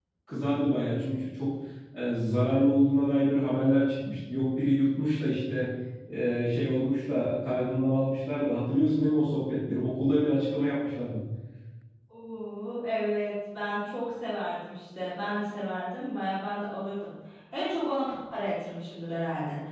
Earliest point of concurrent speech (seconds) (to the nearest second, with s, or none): none